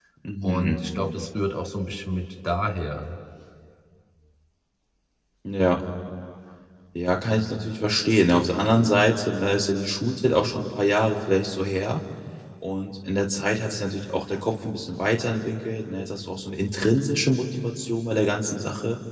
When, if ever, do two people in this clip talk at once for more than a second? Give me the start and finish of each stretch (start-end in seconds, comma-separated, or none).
none